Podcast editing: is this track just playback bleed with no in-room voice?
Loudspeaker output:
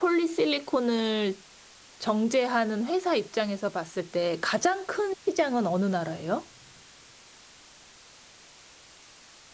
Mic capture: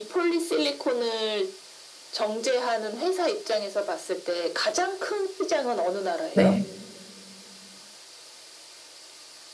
No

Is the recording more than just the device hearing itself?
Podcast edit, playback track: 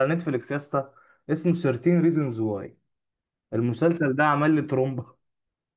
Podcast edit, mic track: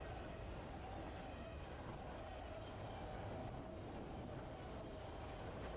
No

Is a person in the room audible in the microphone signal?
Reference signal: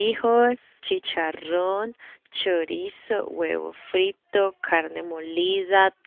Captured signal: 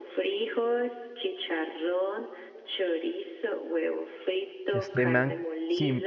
Yes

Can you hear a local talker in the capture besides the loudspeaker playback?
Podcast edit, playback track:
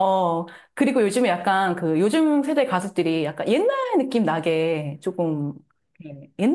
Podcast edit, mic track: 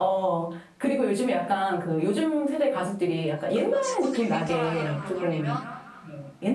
Yes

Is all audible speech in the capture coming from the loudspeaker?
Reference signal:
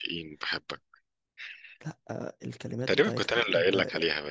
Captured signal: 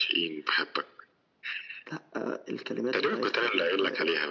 Yes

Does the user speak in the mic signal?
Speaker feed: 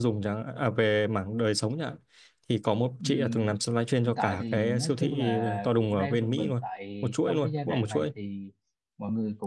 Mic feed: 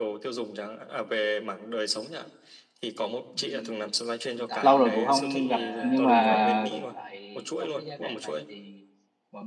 Yes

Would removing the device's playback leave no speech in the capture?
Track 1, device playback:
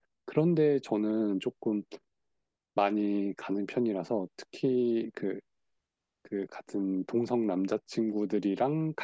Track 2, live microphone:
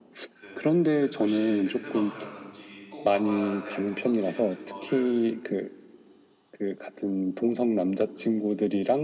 No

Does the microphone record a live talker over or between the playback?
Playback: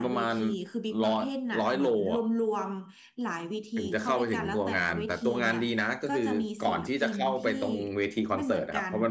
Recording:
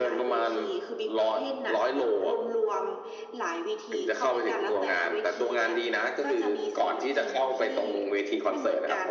No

